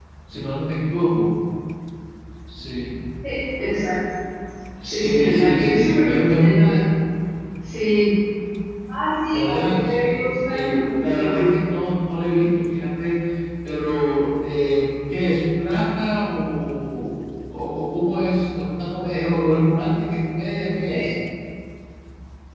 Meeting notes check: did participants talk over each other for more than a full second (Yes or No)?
Yes